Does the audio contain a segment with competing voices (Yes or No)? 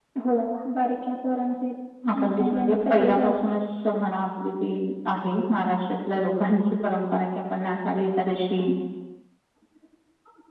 Yes